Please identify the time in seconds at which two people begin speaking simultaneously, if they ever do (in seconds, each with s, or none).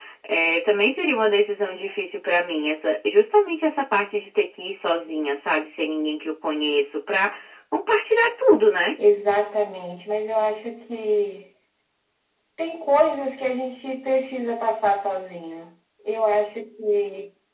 none